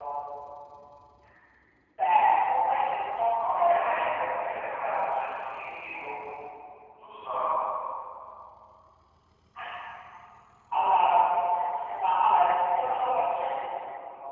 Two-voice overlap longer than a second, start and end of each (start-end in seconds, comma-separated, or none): 3.4-4.6